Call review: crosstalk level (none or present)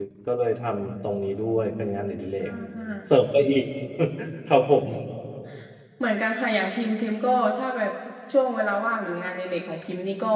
none